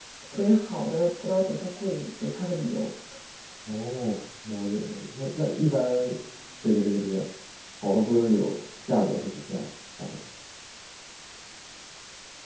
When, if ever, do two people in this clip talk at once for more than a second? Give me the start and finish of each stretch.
none

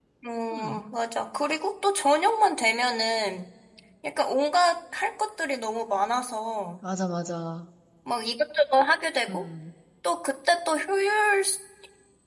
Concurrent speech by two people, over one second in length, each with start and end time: none

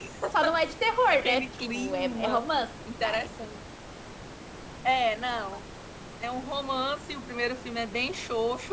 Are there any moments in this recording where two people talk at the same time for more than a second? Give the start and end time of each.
1.1-2.4

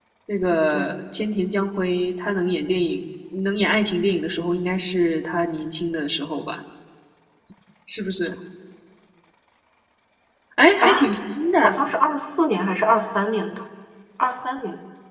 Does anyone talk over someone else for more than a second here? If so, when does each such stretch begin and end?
none

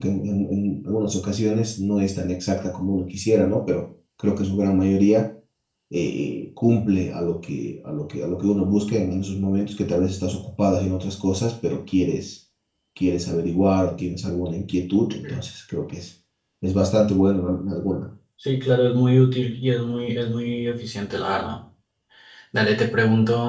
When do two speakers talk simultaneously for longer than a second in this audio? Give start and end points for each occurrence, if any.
none

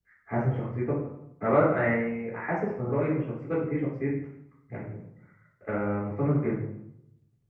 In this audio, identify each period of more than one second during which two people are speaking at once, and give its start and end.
none

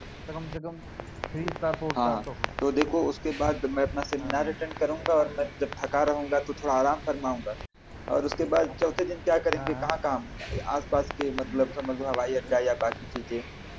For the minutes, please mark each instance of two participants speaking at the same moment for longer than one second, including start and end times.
none

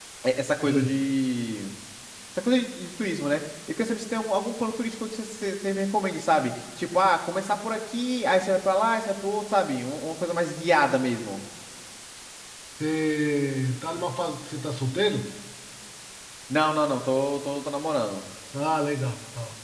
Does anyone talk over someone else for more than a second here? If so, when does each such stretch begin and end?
none

